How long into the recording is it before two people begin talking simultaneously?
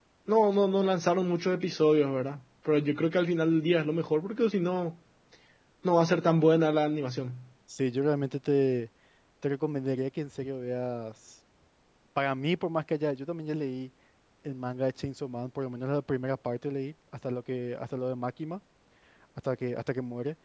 none

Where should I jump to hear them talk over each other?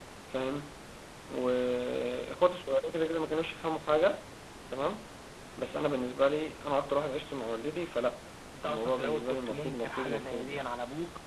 9 s

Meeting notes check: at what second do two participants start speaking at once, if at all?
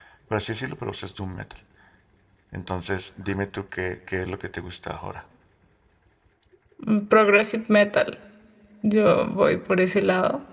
none

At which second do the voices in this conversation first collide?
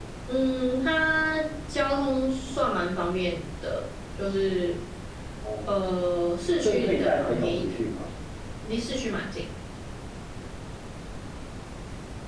7 s

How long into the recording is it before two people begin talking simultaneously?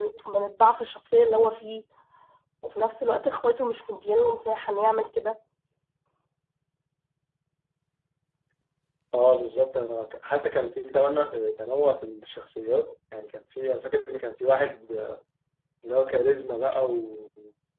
none

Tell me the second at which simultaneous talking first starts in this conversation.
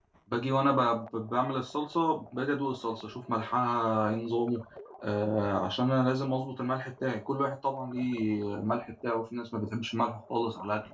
none

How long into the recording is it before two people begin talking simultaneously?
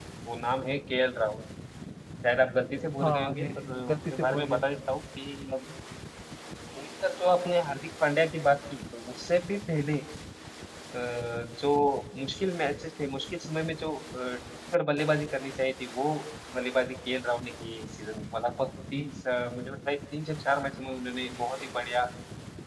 3 s

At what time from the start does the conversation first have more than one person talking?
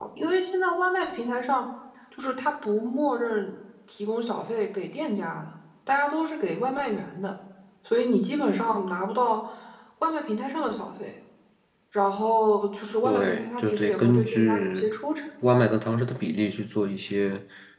13 s

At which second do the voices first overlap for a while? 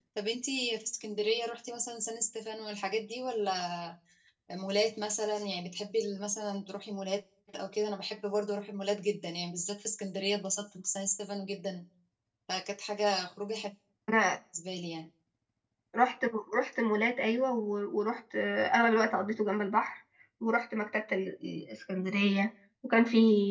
none

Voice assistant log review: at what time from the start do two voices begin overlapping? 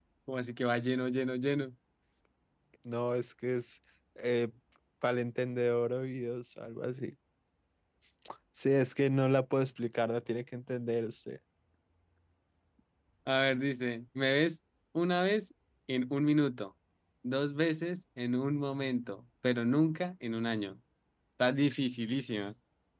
none

